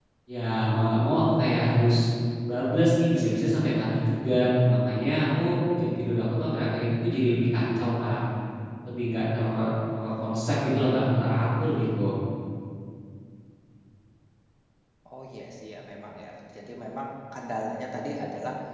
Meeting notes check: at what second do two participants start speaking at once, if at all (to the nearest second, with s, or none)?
none